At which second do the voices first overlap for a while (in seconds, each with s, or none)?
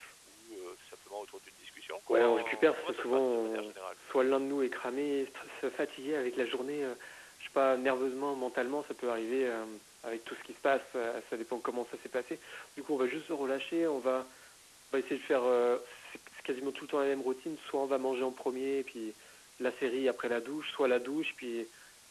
2.1 s